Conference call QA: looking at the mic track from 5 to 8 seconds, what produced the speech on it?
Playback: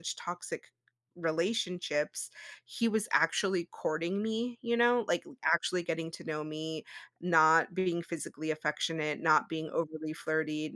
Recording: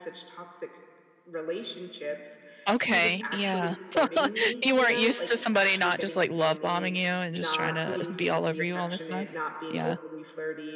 both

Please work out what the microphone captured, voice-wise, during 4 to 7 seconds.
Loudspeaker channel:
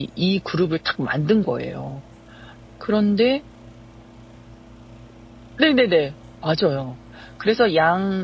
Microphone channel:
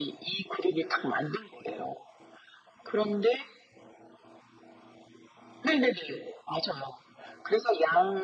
echo only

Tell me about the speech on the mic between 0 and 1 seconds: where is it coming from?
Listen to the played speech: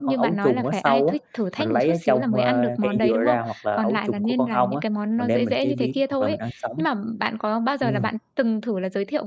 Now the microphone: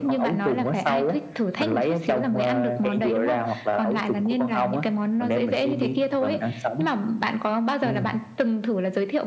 echo only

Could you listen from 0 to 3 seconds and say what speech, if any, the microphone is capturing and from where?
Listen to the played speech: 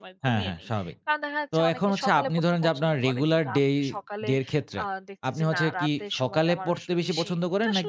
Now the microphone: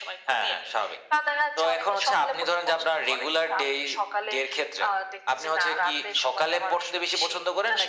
echo only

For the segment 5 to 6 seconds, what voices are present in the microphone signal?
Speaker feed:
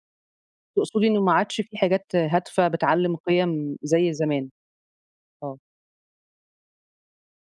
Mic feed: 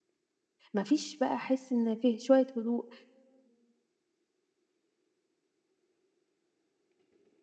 neither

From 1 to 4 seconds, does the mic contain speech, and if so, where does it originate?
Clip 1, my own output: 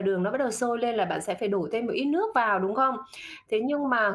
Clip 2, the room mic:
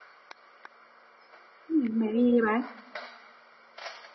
user only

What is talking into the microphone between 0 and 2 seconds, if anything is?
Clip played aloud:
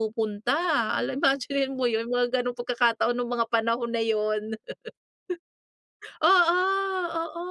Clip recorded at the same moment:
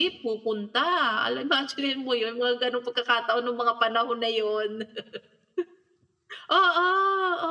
echo only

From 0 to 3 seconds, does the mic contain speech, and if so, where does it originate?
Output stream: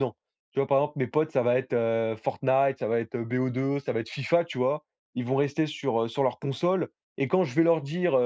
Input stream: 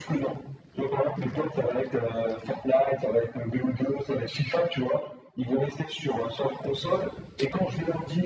echo only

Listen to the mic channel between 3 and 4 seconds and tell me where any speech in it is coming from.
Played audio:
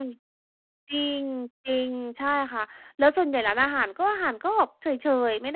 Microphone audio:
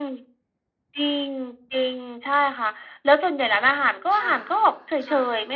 echo only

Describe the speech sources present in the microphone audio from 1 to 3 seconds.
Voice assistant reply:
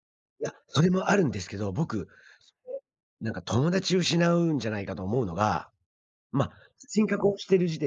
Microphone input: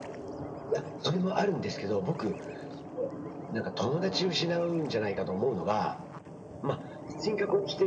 echo only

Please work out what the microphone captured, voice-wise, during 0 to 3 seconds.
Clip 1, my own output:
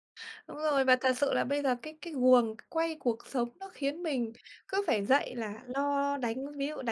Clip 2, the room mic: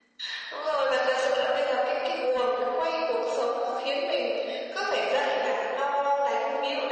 echo only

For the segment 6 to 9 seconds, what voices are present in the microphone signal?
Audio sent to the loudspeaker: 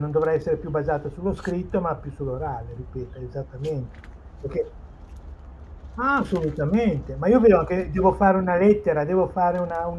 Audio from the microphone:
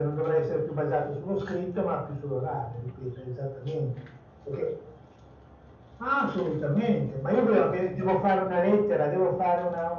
echo only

